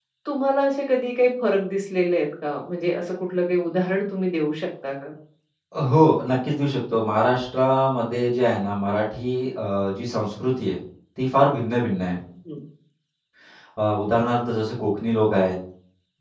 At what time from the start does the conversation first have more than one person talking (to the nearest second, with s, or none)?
none